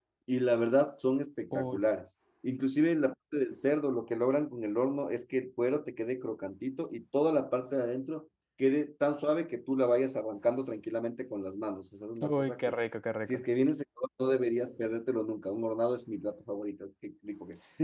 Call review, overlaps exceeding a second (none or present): none